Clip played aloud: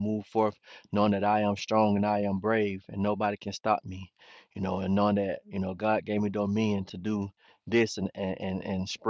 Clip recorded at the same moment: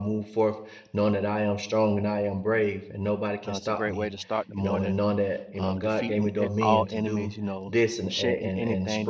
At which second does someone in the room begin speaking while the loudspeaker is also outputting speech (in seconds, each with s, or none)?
3.5 s